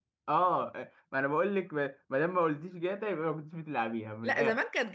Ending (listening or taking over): taking over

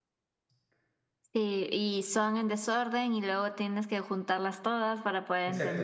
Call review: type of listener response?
taking over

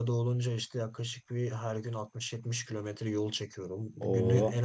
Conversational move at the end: listening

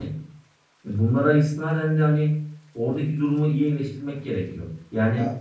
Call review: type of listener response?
listening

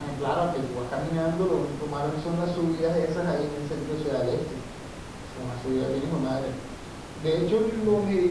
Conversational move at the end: listening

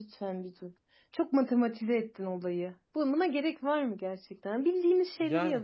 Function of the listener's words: listening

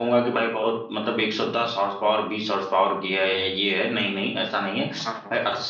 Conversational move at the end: listening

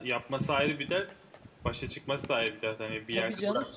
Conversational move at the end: taking over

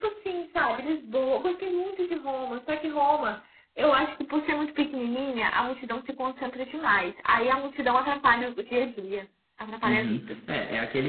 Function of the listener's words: taking over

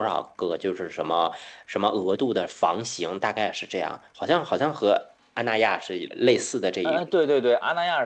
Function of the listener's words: taking over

